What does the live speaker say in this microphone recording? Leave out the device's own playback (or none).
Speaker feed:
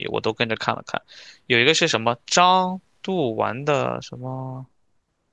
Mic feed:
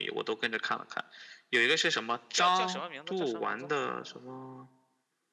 叫叫什么名字？叫什么名字？